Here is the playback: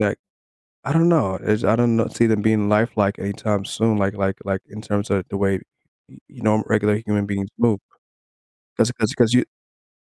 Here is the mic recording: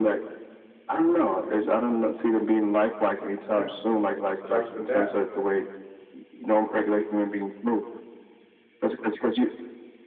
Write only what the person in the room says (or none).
yeah, that's it just starts with that, but